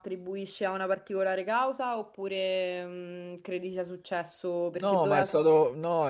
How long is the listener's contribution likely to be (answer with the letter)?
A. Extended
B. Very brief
A